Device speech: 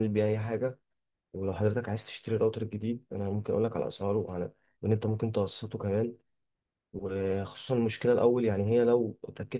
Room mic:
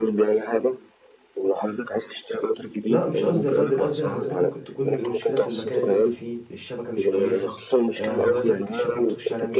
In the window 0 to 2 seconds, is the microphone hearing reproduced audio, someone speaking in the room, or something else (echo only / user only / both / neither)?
echo only